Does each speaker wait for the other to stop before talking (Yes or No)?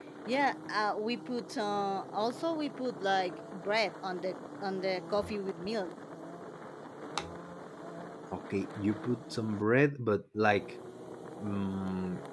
Yes